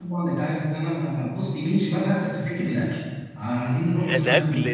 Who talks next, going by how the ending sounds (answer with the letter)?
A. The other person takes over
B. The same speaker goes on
A